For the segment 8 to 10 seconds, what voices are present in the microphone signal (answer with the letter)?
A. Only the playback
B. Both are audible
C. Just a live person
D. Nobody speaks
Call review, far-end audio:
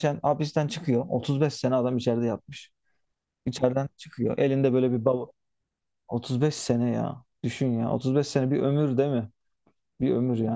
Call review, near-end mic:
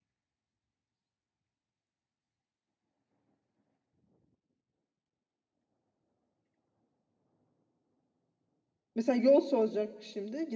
C